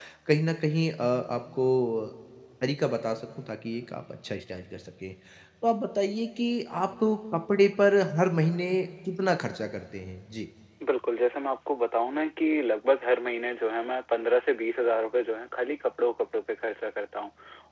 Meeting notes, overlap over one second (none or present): none